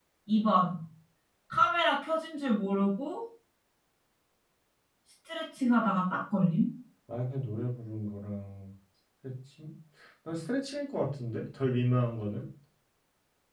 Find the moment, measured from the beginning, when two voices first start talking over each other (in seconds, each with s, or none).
none